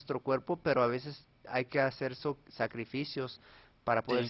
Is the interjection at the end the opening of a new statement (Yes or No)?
No